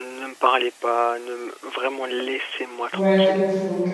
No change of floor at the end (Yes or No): No